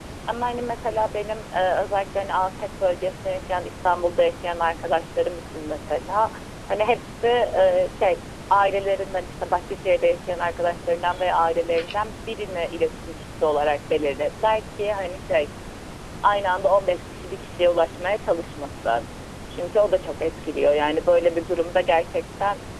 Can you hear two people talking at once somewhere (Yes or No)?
No